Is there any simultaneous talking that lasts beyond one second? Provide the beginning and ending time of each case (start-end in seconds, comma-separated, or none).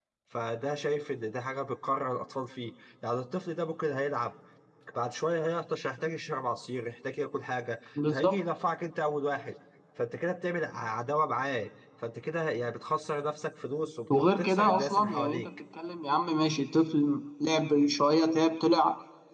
14.2-15.5